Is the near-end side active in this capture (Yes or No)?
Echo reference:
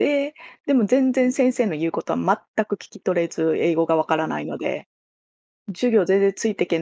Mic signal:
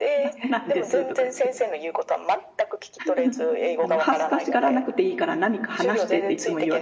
Yes